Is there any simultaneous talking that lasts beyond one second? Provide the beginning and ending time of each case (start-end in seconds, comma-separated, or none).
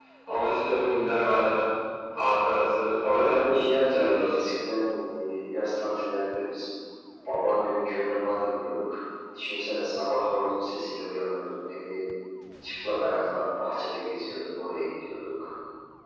3.0-4.5